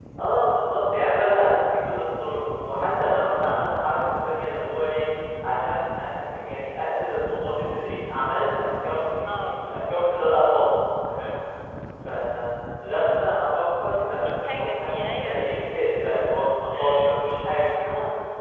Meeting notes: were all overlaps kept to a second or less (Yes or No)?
No